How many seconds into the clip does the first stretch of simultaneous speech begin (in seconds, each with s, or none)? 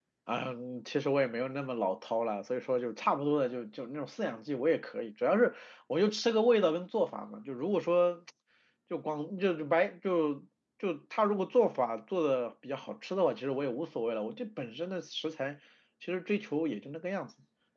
none